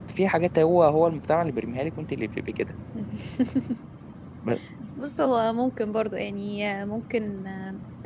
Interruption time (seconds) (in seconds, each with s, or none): none